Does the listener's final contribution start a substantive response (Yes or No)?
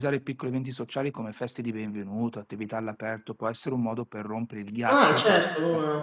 Yes